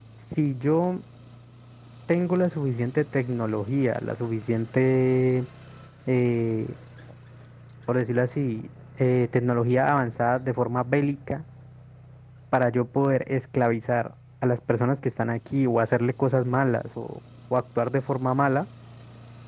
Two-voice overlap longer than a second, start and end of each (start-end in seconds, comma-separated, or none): none